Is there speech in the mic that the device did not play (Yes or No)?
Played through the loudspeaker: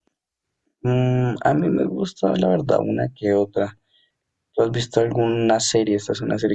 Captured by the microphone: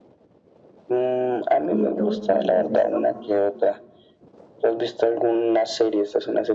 Yes